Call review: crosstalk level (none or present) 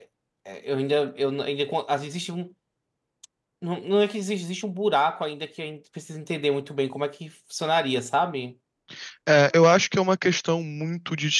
none